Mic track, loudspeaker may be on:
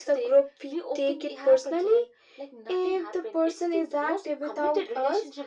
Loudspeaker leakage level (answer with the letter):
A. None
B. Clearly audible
B